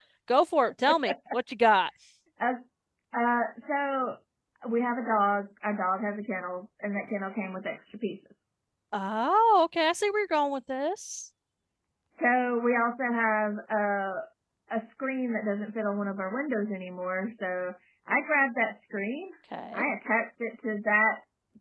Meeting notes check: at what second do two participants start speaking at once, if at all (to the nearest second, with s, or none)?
none